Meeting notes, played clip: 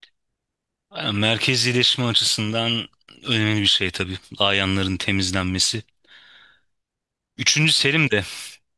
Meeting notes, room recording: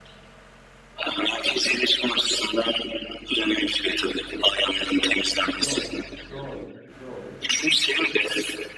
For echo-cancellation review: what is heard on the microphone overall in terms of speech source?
both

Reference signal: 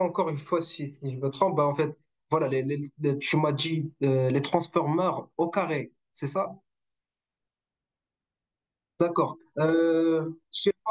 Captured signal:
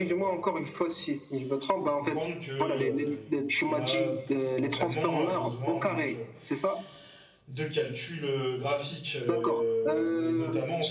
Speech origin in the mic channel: both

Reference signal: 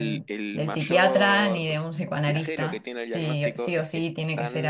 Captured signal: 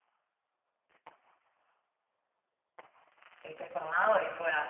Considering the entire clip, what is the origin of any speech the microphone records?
user only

